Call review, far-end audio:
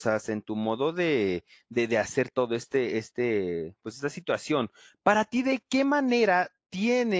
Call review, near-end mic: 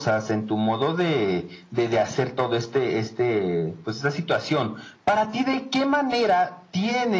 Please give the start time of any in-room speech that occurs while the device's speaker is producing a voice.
none

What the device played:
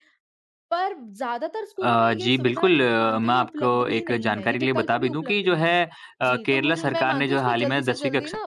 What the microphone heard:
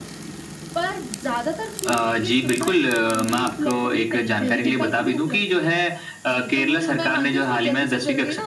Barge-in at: 4.4 s

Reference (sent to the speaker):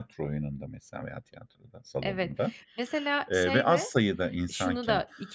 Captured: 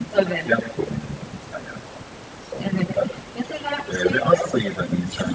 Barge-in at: none

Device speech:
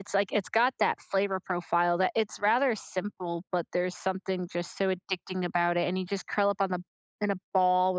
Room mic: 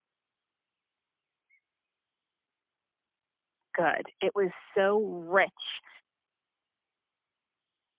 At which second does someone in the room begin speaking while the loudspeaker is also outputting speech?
3.7 s

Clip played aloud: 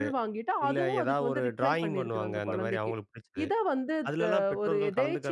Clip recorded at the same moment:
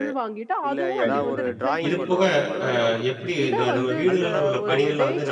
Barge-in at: 1.0 s

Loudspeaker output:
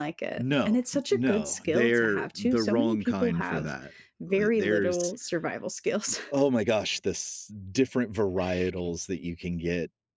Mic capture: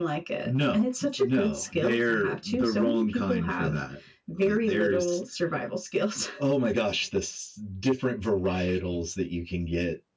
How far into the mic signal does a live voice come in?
none

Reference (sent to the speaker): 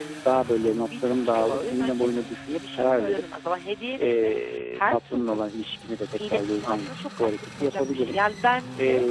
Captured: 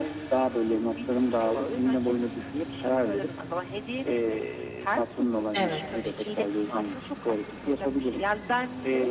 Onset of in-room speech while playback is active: 5.5 s

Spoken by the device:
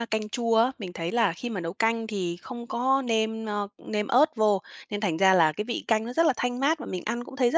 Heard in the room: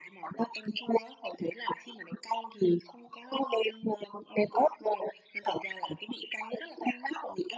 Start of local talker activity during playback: none

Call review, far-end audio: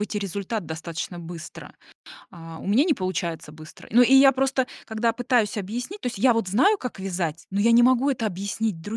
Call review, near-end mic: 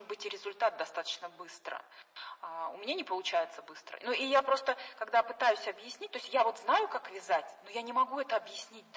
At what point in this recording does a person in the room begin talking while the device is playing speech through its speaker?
none

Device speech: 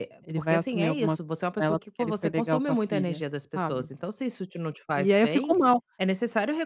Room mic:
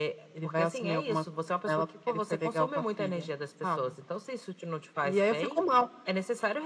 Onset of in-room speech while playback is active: none

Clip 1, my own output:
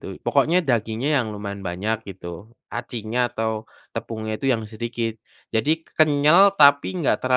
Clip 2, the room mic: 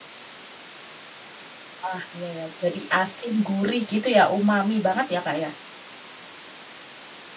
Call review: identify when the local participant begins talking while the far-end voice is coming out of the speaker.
1.9 s

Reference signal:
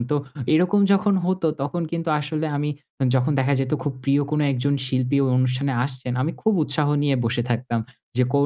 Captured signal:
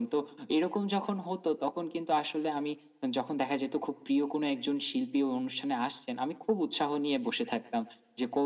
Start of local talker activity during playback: none

